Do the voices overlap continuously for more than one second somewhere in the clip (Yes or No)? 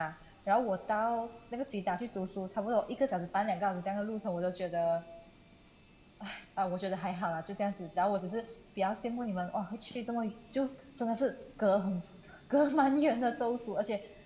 No